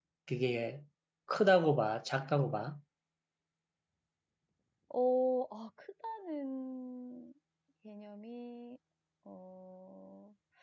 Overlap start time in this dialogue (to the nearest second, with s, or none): none